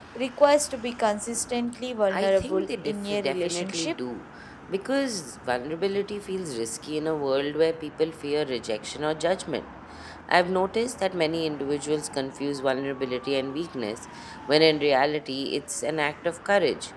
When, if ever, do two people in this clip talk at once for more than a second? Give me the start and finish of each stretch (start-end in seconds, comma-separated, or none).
2.1-3.9